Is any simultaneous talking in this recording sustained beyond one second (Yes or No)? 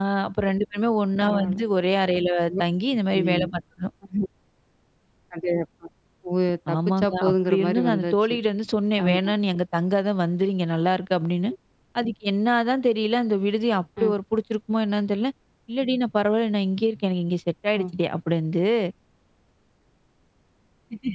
Yes